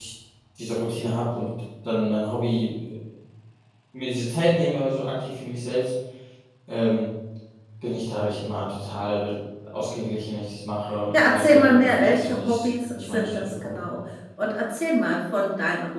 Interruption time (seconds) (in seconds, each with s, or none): 11.1 s